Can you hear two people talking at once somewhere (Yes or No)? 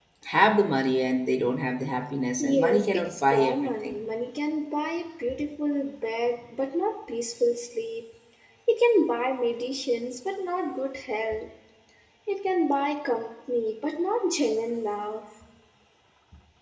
Yes